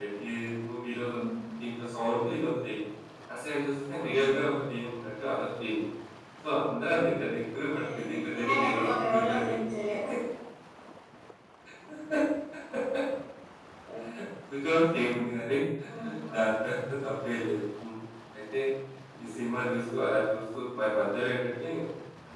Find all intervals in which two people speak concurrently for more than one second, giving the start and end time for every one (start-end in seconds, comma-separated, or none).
7.8-9.5